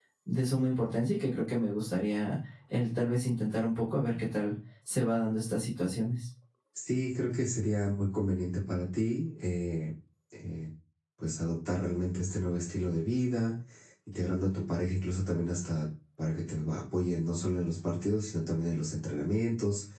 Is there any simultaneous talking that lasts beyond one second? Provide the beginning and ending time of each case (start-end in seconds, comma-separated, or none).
none